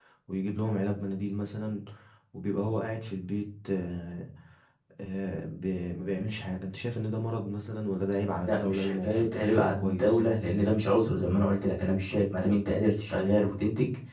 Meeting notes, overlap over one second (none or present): present